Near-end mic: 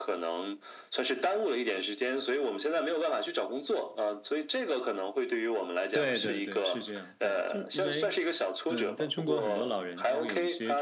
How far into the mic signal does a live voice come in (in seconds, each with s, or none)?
5.9 s